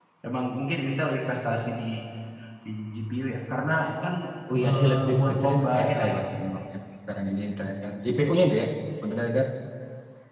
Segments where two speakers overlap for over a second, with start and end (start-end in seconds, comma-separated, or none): 4.6-6.1